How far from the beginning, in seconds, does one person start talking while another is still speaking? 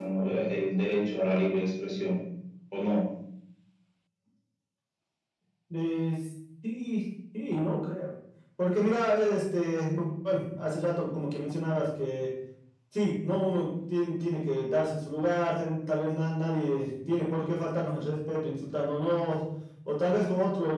none

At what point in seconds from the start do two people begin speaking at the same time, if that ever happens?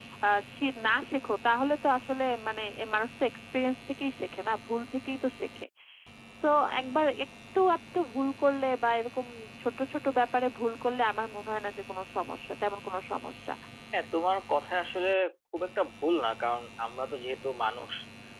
none

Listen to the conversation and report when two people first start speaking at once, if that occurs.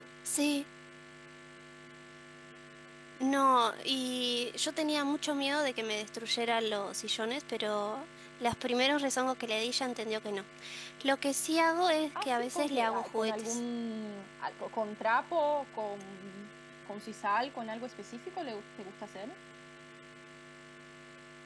12.2 s

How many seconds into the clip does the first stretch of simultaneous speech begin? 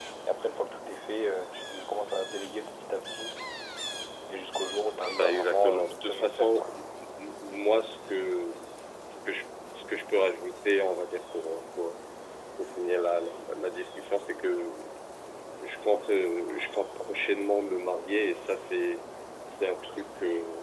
5.2 s

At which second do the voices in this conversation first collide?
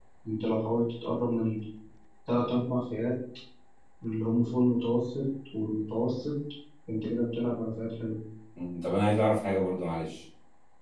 none

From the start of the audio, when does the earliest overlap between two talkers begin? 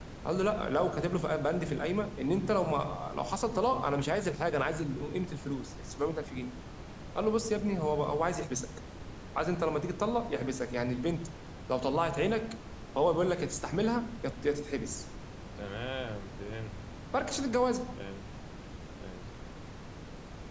none

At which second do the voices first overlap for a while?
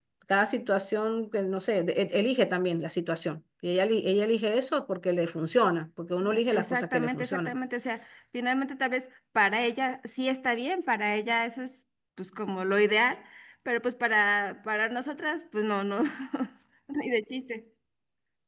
6.2 s

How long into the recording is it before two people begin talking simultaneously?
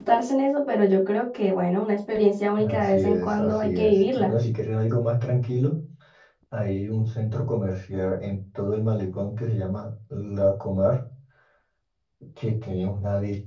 2.6 s

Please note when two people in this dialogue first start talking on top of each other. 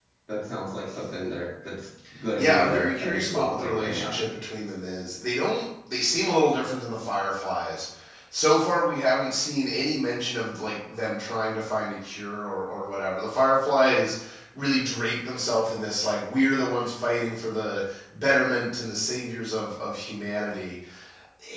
2.4 s

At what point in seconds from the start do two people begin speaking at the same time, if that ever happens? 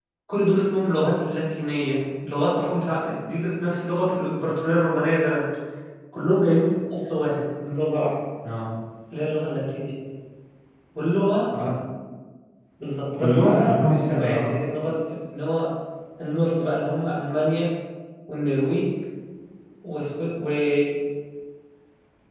13.2 s

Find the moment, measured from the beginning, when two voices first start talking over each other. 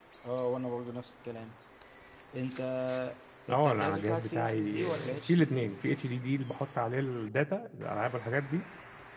3.5 s

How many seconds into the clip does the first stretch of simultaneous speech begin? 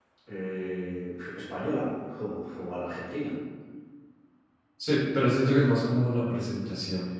none

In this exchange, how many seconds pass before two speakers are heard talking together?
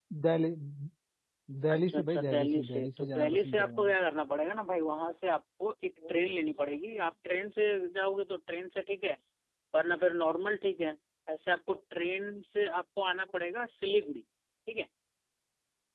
1.7 s

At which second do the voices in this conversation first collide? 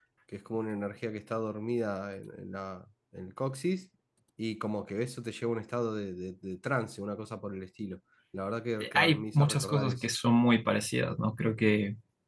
8.8 s

